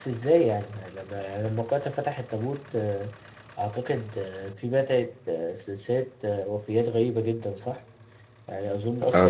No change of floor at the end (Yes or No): Yes